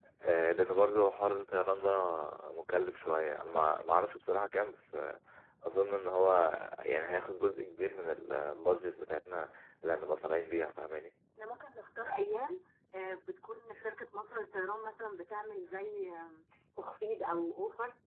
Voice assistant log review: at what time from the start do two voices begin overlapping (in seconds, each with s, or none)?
none